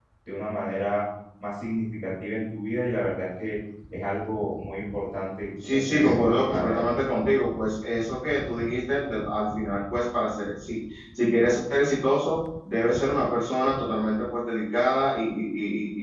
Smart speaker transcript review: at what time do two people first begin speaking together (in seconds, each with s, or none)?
5.6 s